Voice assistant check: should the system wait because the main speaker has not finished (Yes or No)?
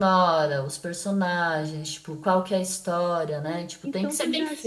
No